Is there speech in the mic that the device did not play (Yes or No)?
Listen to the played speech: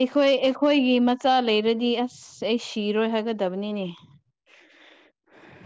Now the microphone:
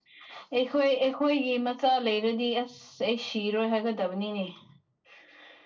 No